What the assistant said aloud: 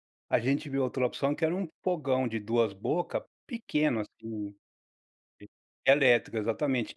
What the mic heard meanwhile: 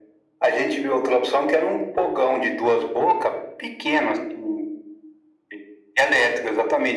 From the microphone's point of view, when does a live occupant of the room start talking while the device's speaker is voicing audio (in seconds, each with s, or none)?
none